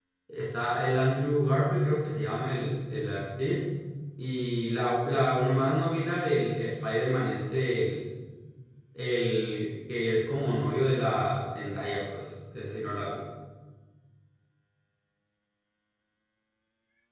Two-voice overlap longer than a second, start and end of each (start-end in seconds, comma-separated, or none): none